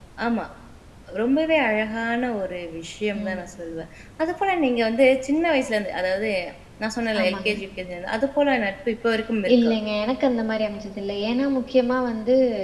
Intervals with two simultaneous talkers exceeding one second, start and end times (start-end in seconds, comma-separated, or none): none